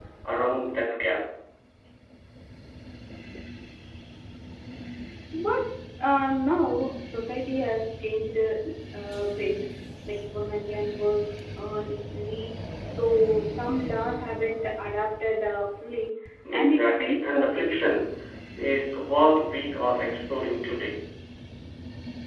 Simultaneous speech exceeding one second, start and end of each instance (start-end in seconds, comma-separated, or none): 16.5-18.0